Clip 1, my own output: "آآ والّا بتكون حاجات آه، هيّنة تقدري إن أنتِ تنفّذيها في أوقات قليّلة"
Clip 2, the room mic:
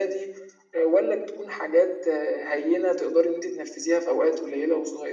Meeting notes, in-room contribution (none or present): none